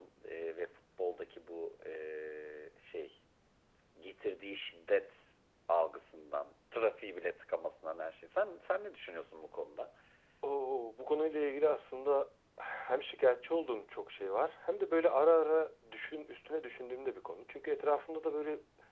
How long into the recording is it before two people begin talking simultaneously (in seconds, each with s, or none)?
none